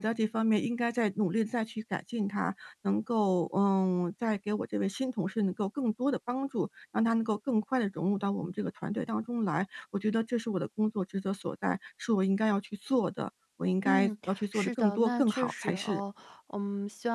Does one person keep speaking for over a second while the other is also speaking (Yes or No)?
Yes